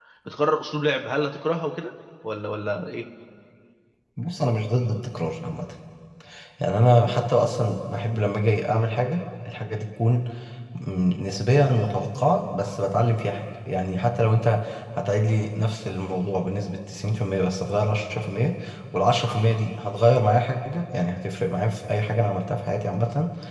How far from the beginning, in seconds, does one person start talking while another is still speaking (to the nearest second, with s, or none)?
none